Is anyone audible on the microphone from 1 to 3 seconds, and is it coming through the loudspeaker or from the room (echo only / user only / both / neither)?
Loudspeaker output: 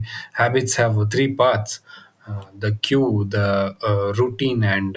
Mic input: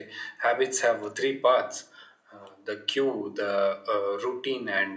echo only